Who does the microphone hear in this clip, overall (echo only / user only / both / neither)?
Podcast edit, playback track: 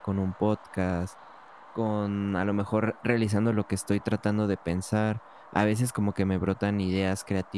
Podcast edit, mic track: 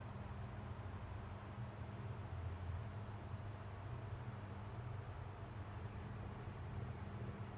neither